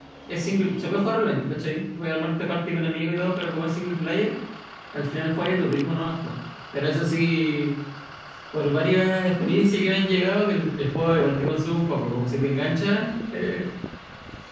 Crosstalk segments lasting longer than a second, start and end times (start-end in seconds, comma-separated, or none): none